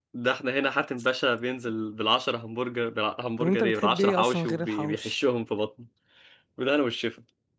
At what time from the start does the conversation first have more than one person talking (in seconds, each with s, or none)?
3.4 s